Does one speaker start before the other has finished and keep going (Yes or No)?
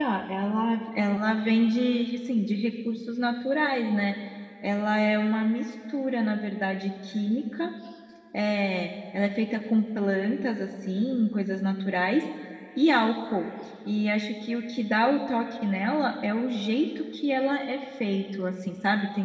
No